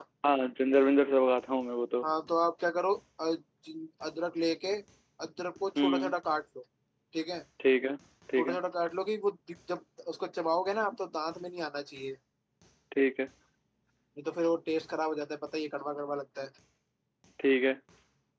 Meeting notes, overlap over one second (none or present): none